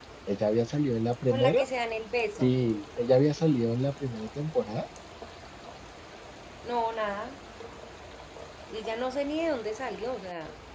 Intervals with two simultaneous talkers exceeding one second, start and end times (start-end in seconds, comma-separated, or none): none